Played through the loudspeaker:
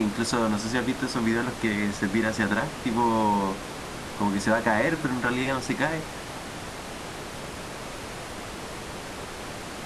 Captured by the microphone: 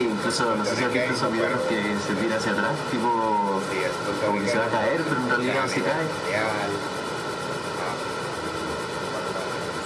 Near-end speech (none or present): present